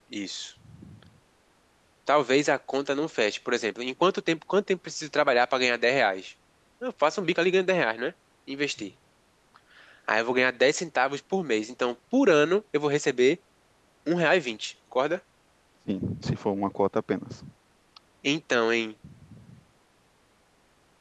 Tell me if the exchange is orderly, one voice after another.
Yes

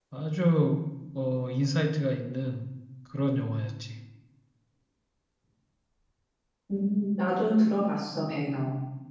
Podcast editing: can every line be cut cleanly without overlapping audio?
Yes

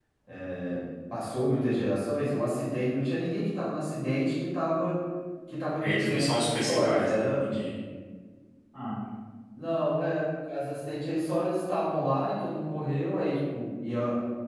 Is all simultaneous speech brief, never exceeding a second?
No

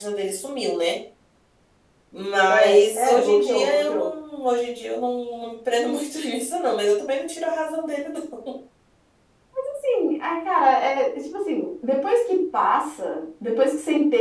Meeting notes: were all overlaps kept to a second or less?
No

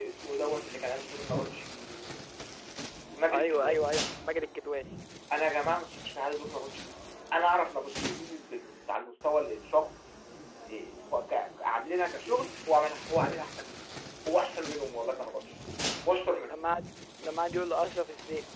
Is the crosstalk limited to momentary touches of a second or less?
Yes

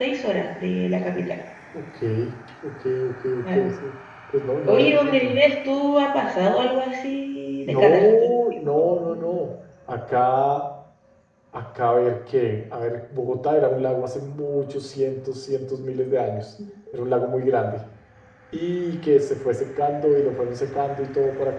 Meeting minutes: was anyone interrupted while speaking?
Yes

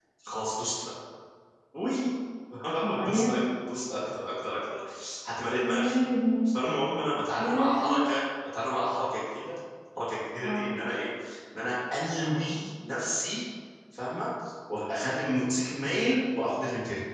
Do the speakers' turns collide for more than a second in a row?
No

